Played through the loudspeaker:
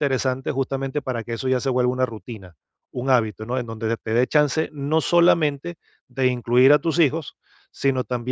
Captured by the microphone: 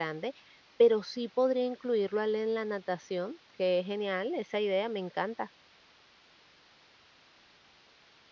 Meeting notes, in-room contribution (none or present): present